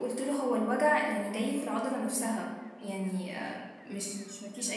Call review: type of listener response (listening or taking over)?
listening